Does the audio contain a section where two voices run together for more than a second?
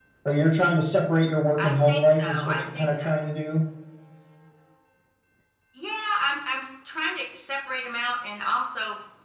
Yes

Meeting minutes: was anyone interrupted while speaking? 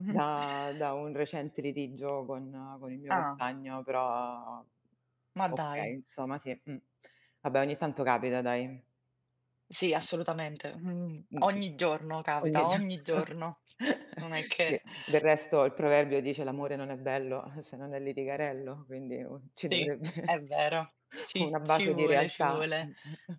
Yes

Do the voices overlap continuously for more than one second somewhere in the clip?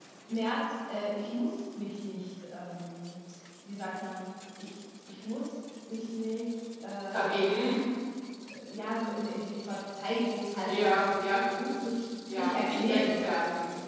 Yes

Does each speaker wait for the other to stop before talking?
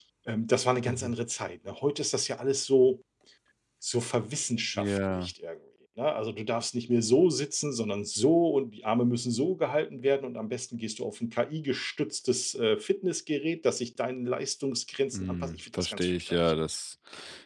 No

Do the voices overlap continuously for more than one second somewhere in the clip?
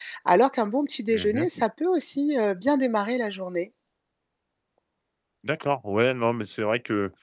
No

